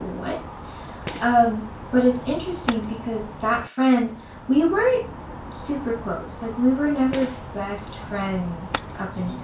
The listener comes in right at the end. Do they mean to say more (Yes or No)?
No